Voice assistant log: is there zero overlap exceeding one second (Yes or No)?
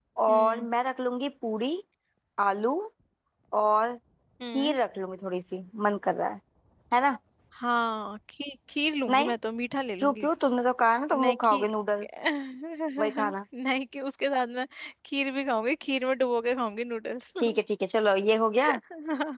Yes